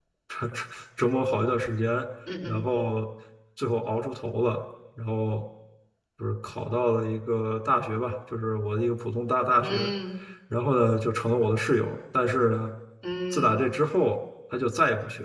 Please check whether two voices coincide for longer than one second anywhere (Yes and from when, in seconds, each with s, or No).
No